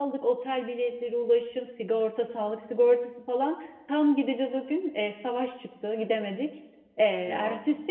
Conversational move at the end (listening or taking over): listening